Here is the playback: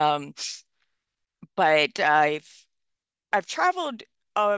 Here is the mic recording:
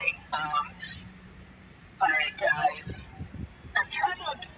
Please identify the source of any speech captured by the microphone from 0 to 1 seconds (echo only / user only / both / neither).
echo only